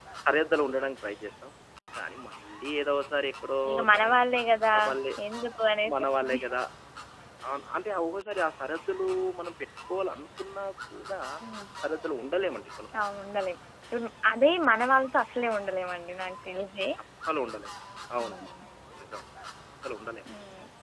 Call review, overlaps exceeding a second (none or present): none